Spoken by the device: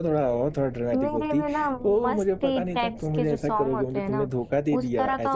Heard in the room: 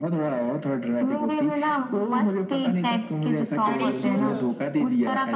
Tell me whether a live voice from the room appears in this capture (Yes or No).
Yes